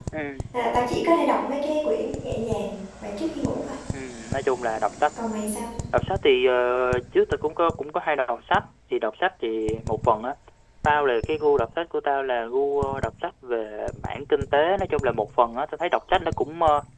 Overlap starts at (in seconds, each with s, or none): none